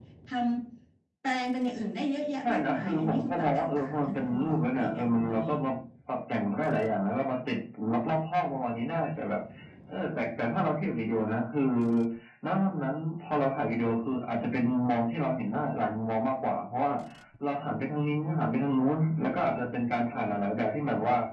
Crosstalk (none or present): present